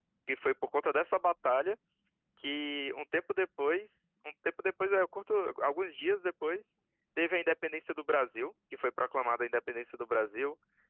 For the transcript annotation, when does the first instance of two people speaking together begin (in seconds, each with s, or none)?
none